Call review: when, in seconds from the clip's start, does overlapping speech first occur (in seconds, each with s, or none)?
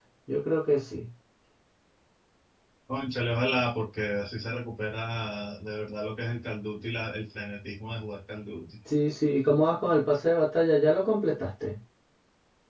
none